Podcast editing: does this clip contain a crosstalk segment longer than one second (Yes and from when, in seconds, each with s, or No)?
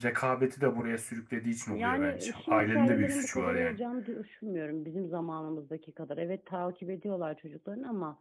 Yes, from 1.7 s